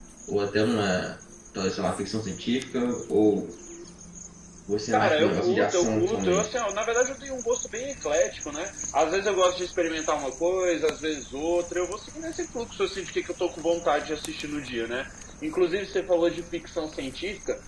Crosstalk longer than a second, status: present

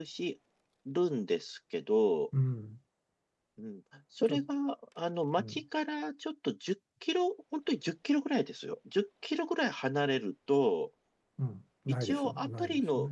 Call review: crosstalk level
present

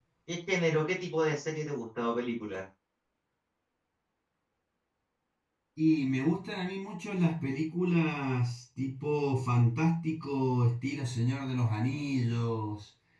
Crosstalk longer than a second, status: none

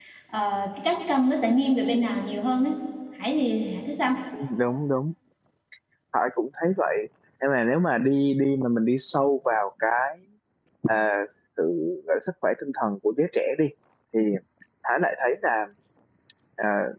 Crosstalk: none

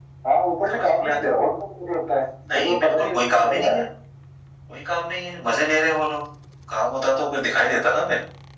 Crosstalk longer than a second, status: present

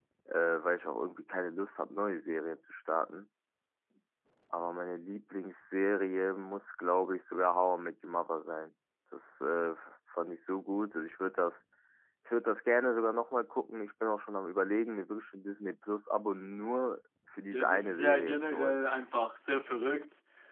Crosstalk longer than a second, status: present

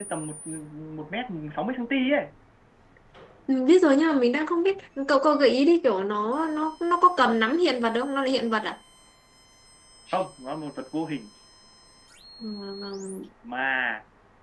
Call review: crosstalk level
none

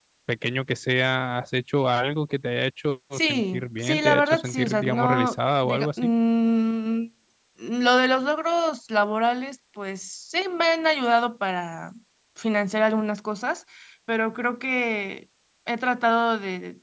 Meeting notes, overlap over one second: present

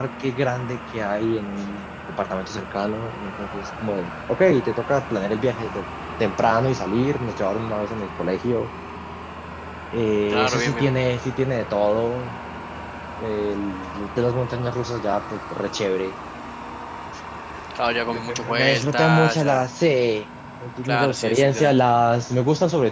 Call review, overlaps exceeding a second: present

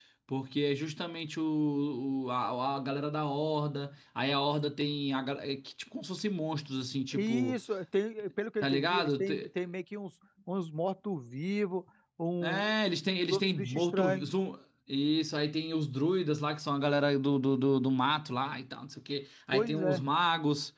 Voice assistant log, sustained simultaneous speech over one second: present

